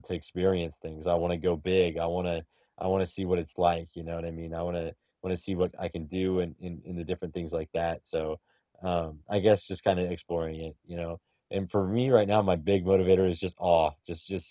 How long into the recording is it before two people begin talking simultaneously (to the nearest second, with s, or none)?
none